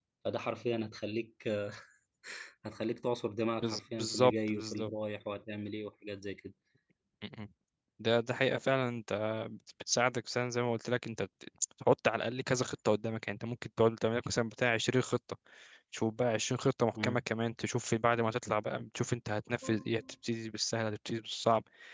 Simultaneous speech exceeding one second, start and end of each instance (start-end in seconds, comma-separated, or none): 3.6-4.9